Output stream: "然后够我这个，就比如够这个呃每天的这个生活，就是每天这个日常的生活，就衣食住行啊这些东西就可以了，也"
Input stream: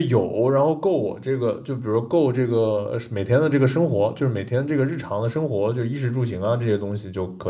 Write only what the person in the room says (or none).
none